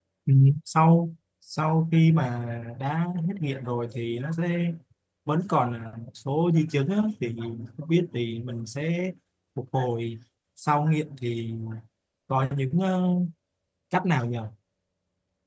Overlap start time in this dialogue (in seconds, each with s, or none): none